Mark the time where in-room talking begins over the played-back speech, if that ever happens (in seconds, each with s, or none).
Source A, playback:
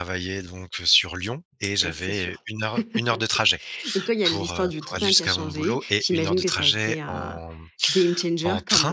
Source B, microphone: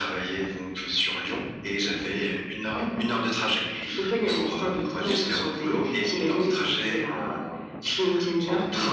5.0 s